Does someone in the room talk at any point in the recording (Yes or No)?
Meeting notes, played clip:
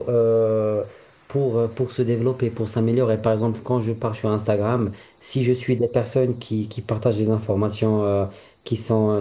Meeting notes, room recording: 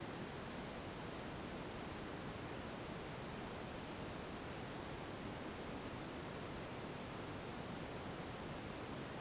No